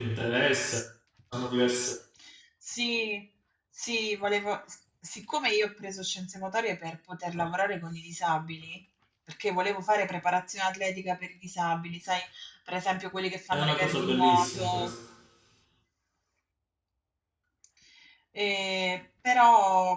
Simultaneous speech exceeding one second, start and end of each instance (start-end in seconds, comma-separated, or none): 13.5-14.9